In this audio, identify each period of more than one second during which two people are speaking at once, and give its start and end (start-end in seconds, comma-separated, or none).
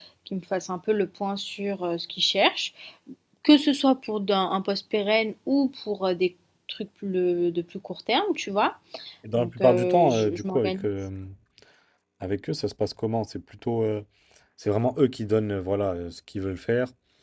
9.4-10.8